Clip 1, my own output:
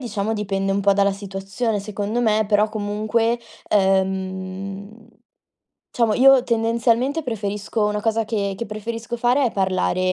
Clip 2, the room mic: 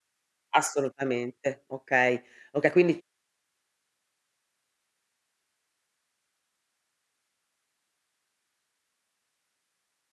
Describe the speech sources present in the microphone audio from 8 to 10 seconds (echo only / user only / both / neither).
neither